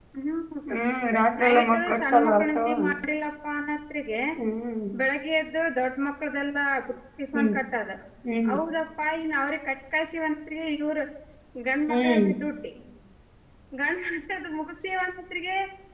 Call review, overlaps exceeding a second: present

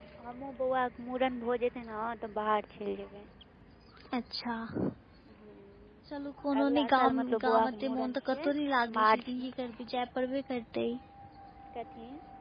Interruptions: present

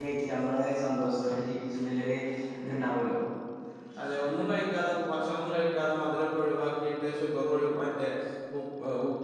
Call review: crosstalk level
none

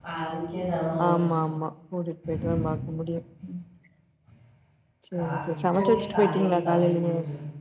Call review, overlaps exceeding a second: present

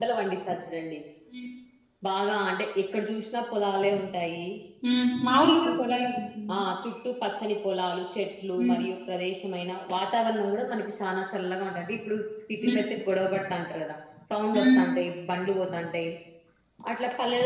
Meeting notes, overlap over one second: none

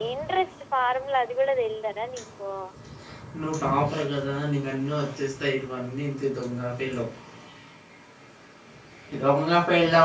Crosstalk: none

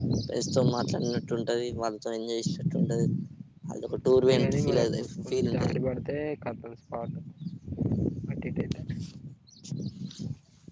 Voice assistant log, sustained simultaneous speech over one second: present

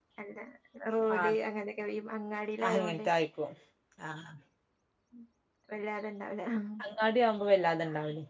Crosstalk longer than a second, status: none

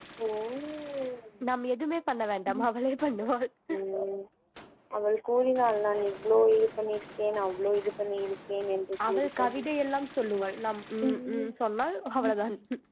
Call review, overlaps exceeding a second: none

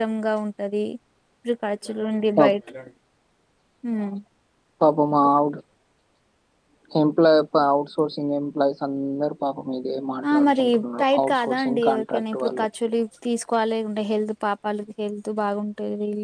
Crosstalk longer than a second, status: present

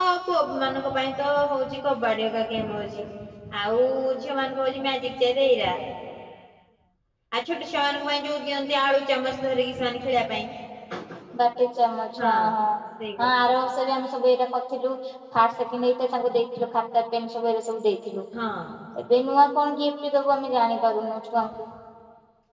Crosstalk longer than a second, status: none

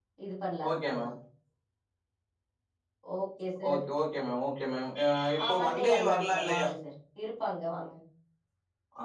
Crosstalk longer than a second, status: present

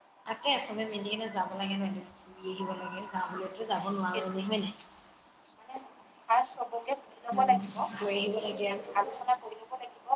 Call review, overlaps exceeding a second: none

